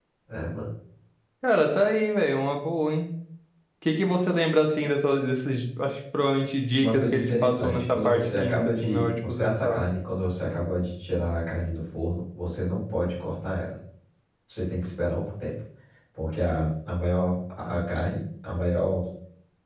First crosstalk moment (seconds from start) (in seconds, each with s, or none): 6.8 s